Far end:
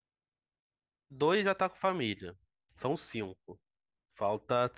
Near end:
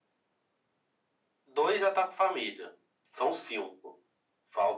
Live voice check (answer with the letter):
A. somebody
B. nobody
B